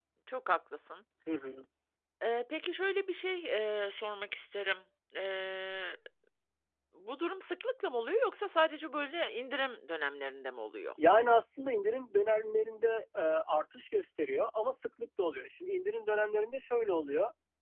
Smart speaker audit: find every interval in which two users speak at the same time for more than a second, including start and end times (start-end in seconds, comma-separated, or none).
none